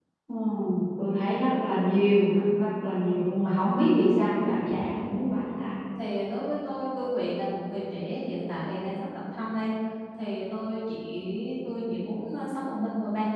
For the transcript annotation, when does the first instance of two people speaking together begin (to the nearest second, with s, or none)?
none